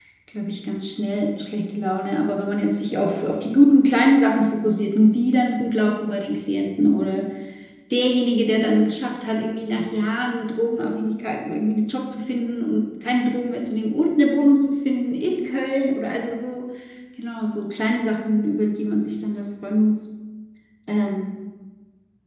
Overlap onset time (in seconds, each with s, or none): none